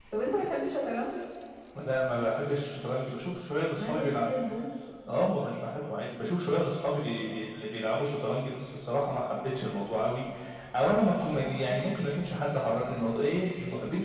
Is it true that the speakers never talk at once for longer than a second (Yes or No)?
Yes